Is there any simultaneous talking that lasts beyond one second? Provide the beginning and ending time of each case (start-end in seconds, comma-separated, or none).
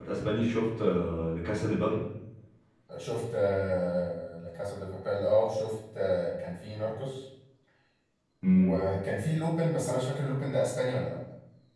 none